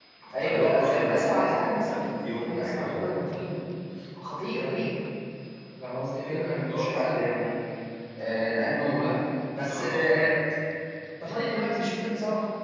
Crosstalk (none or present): present